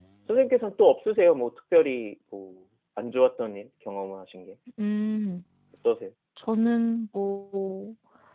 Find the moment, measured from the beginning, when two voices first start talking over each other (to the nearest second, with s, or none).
none